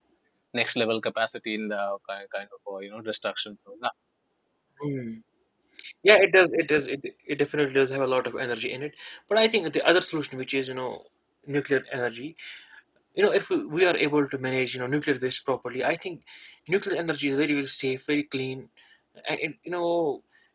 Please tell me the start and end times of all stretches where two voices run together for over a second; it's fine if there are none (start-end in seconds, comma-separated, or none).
none